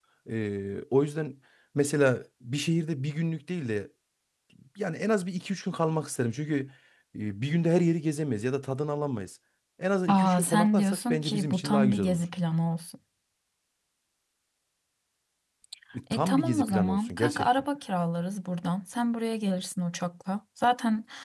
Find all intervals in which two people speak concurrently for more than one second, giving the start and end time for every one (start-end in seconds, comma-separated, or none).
10.1-12.2, 16.1-17.5